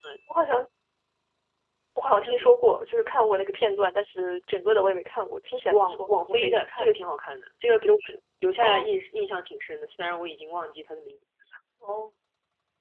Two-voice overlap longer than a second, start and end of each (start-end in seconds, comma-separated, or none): 5.7-7.1